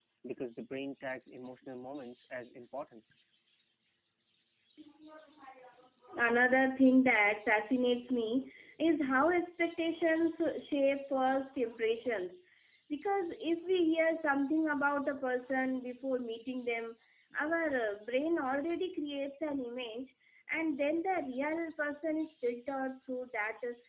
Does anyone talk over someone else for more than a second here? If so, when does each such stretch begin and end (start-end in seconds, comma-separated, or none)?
none